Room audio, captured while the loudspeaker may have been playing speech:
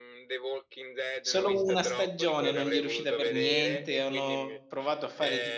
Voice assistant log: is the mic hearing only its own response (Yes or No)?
No